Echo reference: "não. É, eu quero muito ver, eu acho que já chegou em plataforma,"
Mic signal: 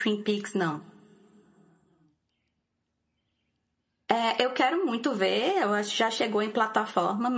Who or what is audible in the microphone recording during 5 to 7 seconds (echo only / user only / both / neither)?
echo only